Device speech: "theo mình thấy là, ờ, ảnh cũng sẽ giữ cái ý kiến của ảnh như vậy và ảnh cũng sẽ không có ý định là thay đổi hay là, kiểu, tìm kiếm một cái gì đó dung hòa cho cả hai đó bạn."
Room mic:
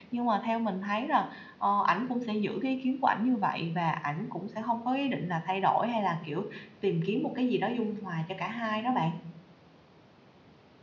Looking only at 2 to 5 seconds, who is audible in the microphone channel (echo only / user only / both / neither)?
echo only